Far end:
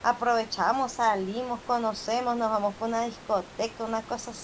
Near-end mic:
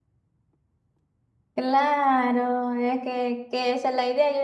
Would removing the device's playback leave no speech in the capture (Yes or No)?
No